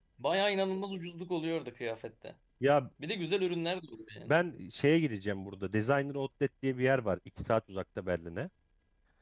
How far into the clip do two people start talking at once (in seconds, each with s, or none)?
none